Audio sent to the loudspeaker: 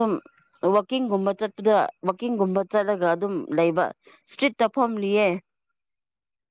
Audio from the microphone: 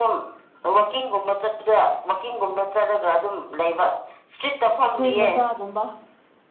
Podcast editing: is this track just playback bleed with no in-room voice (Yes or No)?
No